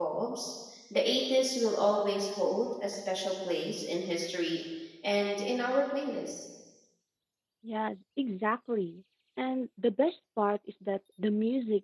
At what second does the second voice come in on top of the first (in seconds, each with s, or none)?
none